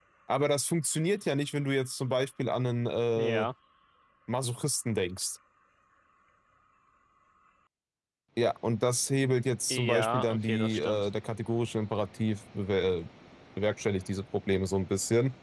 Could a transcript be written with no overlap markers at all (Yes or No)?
No